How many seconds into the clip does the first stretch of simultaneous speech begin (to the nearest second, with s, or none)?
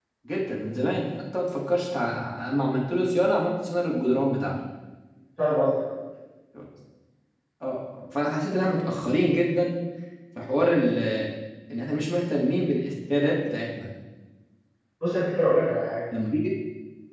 none